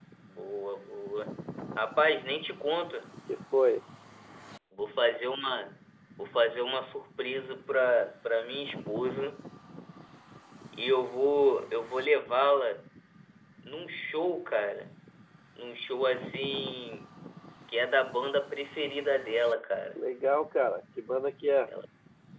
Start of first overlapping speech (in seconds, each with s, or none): none